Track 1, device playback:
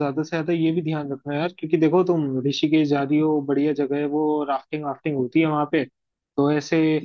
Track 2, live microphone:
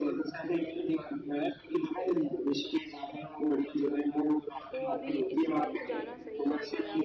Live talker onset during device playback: 5 s

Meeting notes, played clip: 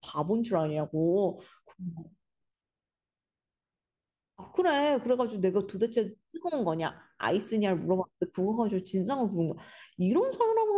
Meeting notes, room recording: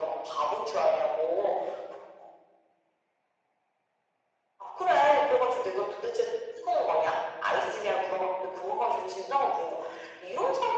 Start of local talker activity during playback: none

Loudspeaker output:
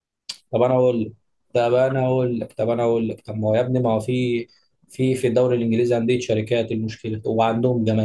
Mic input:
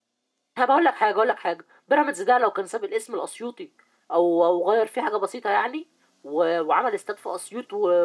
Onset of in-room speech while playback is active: 1 s

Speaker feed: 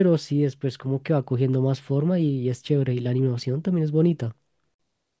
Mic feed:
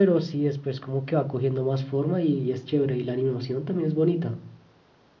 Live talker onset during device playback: none

